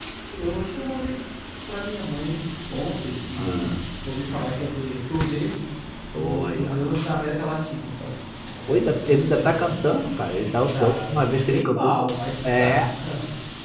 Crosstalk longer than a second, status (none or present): present